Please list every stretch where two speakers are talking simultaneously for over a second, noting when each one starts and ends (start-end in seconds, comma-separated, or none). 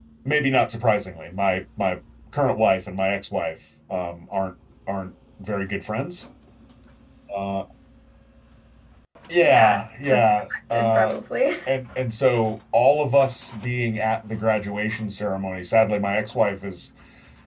9.4-11.1